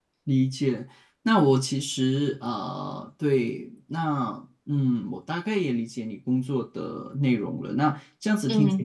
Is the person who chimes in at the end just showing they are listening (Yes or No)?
Yes